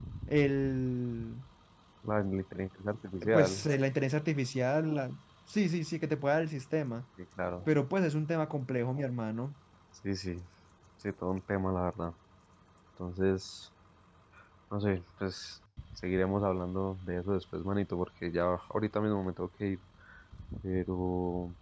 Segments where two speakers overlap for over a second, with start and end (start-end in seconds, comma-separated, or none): none